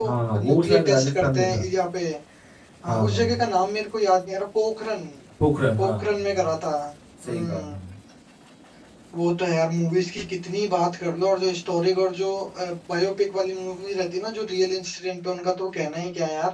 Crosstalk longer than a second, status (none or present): present